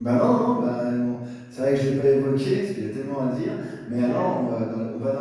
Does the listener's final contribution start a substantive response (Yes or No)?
No